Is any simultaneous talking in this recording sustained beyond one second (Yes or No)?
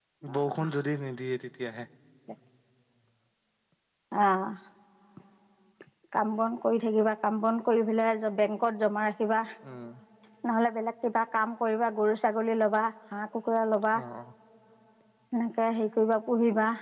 No